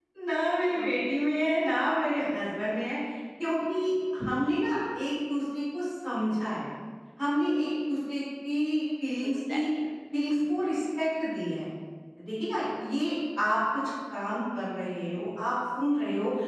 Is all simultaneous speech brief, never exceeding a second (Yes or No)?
Yes